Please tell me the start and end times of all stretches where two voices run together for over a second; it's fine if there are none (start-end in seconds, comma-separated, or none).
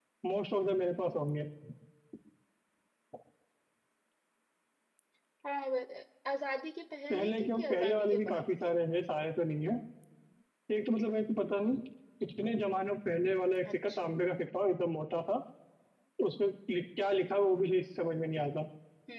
7.1-8.4